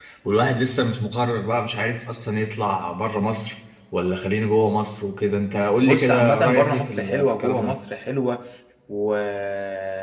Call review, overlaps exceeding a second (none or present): present